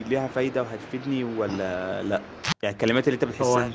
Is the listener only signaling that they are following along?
Yes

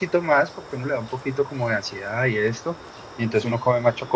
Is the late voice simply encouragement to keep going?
Yes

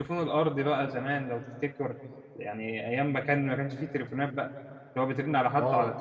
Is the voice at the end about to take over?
No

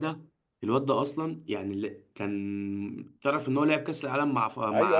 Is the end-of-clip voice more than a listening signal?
Yes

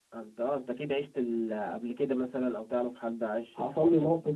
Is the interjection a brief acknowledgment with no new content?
No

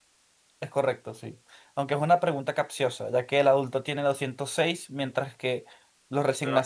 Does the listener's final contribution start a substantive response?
Yes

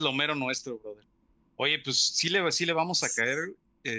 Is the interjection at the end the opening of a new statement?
No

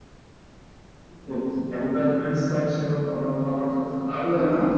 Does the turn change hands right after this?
No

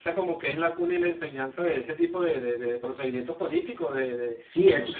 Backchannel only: No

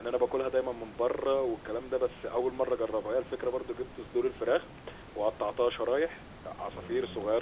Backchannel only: Yes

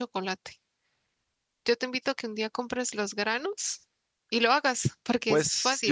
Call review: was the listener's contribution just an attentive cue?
No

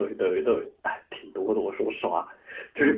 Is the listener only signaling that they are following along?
Yes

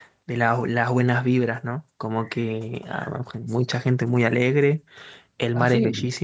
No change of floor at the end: Yes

